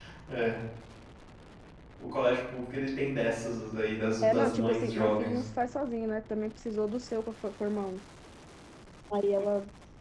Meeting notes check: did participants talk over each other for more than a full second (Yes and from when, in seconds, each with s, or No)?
Yes, from 4.2 s